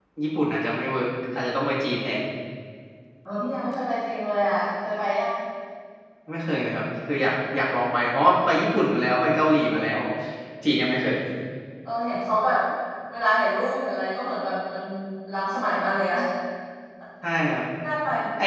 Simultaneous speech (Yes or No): No